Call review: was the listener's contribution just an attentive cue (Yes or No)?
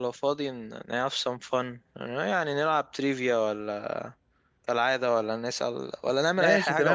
No